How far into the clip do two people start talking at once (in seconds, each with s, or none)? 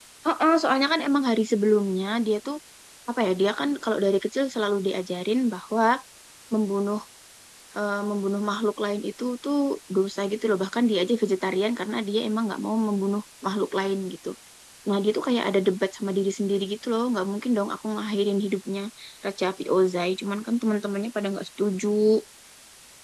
none